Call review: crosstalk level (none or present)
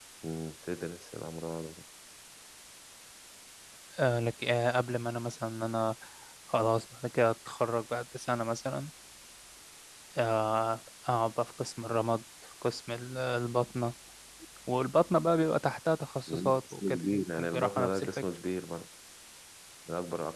present